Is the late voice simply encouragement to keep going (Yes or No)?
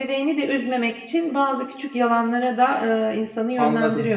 No